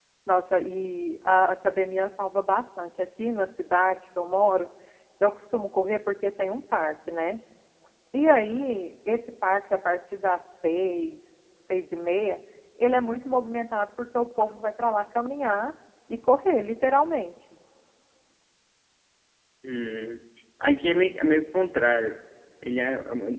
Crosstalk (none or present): none